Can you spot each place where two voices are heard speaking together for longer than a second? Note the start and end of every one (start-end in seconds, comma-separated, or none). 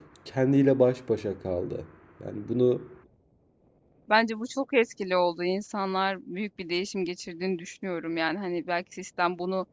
none